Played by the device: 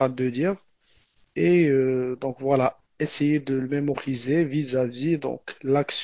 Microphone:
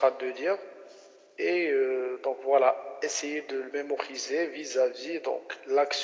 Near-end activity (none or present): none